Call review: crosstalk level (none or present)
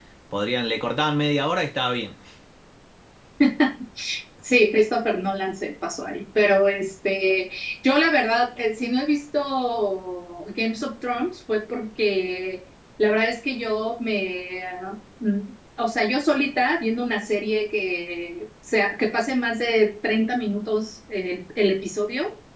none